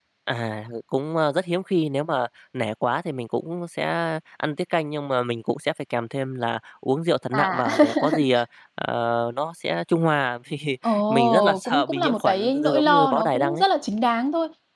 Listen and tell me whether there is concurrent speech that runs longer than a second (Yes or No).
Yes